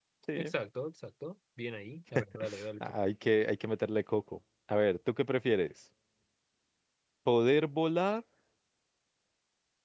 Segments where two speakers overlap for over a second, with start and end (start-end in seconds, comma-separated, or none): none